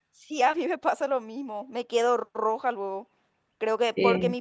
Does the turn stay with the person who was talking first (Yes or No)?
Yes